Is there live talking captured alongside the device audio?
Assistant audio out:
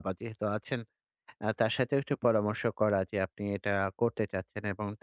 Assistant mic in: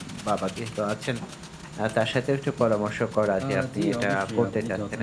Yes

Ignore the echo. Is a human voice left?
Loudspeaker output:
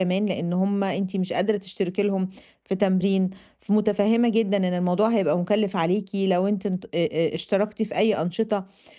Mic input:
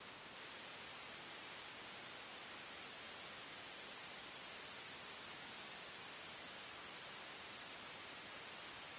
No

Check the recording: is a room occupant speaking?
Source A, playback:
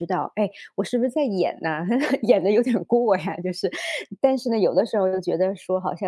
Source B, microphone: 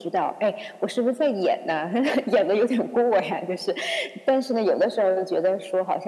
No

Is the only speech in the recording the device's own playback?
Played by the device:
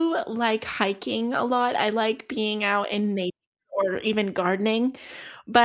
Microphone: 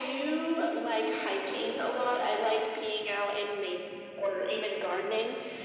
Yes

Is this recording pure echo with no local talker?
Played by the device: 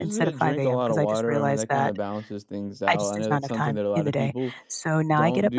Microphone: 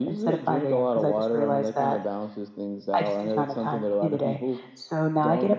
Yes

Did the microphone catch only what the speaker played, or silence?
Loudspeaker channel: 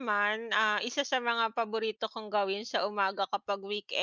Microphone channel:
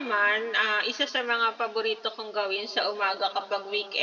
Yes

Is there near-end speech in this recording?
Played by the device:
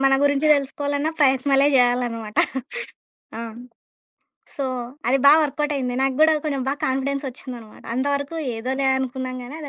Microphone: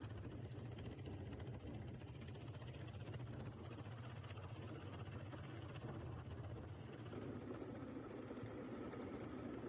No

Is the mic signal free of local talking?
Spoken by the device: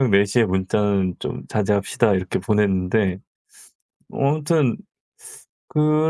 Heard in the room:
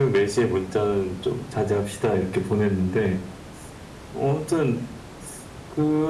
Yes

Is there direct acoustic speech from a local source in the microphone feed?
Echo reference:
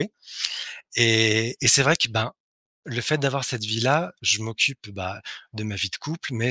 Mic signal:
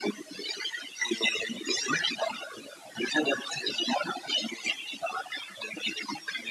No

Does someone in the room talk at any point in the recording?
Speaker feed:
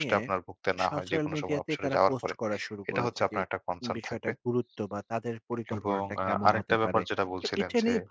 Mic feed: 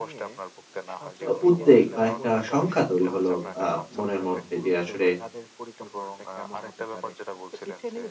Yes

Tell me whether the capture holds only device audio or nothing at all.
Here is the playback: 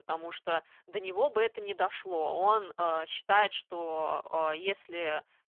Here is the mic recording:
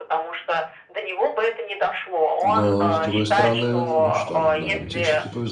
No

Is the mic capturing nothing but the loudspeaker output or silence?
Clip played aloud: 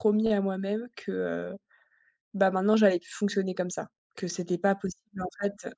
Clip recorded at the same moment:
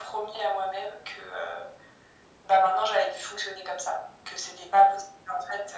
Yes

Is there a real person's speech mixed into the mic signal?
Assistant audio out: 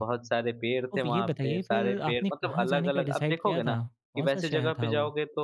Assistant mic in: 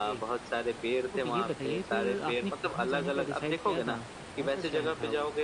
No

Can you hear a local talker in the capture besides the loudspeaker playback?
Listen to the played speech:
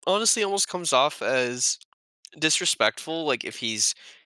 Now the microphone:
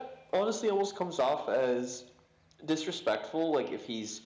No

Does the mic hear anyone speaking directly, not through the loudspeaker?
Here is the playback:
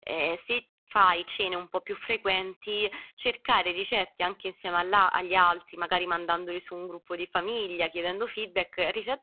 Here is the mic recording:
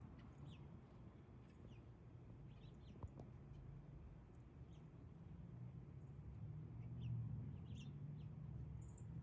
No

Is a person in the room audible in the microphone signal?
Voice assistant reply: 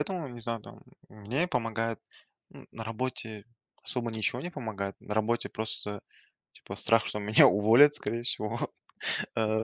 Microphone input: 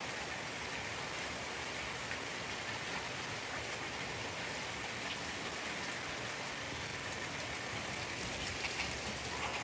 No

